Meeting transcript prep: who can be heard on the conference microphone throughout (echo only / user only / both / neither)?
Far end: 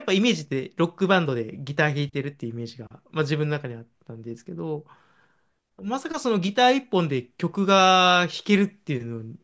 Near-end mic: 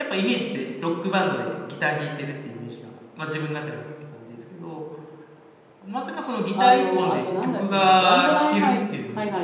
both